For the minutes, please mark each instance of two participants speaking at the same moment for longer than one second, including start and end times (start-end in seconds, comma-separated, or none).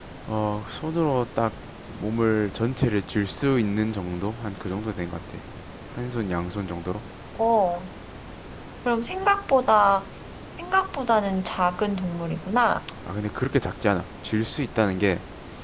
none